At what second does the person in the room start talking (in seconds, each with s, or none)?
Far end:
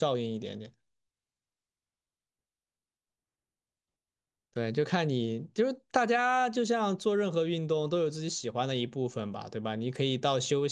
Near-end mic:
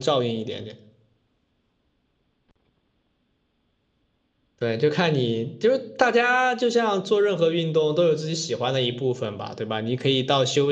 none